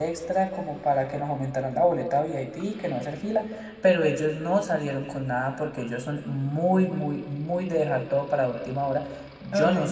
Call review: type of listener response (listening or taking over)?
listening